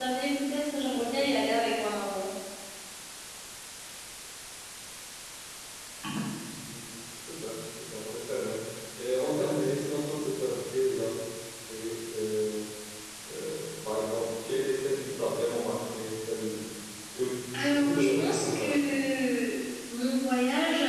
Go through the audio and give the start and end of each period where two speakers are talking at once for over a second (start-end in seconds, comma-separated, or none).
17.6-18.8